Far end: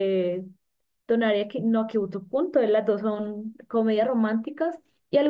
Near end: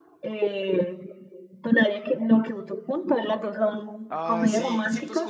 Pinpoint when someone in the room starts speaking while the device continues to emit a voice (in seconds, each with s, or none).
4.1 s